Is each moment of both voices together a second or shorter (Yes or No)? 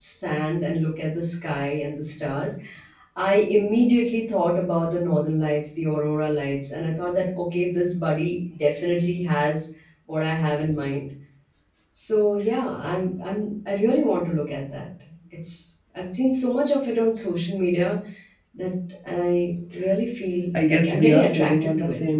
No